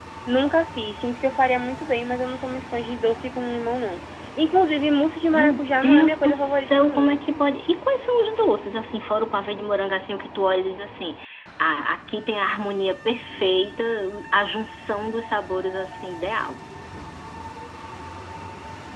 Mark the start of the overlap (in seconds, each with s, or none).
5.3 s